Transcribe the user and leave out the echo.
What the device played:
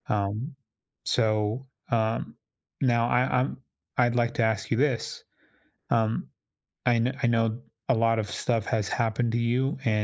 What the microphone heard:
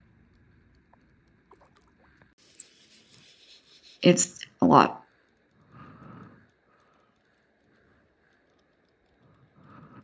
it's a lot.

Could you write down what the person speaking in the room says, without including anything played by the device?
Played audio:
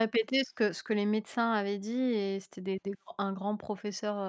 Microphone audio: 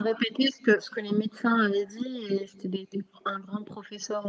none

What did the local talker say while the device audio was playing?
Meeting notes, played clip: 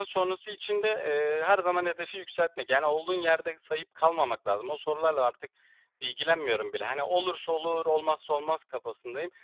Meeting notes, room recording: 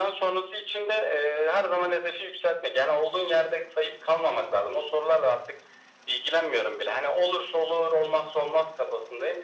none

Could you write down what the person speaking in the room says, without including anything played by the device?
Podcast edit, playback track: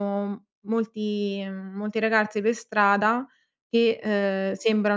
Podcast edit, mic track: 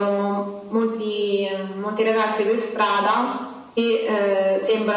none

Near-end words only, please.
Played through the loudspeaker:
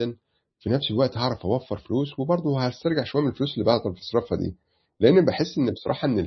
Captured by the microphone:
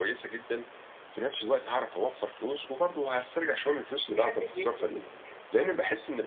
ما حدّش بيستفيد بيها.

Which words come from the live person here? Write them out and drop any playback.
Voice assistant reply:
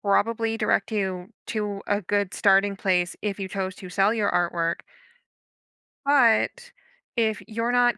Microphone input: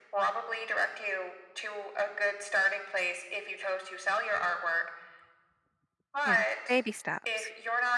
You know, baby steps.

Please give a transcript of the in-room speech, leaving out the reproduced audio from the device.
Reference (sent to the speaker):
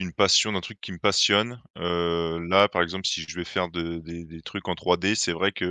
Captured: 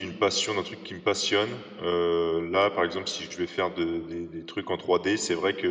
none

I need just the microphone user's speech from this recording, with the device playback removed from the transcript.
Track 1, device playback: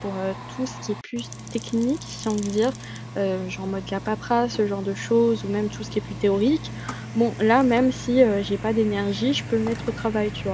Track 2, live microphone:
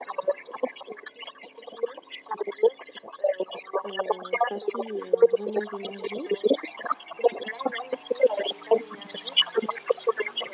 heu, fatigue et un vrai manque d'énergie.

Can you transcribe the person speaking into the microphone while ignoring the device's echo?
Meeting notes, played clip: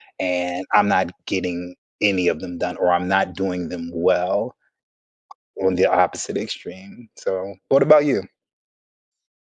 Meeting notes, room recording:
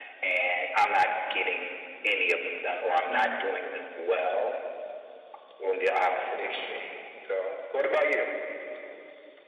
Yeah.

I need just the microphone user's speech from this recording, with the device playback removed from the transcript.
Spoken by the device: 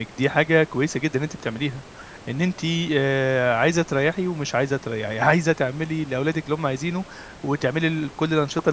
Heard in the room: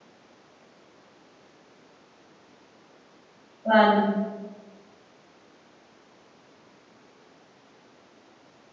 ف

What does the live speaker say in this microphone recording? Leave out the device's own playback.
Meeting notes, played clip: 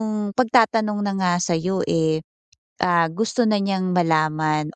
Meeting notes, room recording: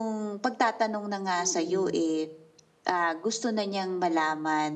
mm.

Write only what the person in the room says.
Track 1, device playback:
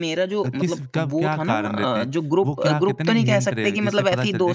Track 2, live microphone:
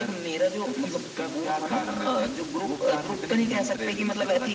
none

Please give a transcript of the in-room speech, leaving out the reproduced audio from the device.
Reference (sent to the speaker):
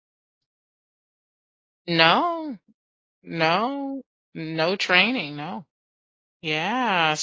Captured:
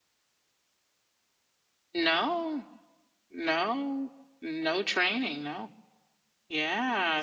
none

